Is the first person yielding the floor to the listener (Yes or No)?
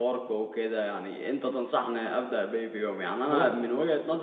No